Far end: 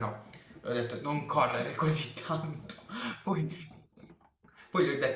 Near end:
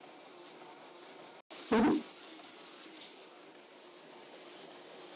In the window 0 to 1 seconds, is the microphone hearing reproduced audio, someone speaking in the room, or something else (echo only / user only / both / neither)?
neither